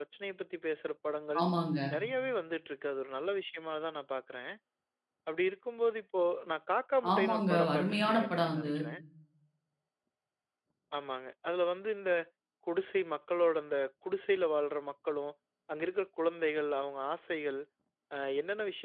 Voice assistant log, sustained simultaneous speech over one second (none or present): present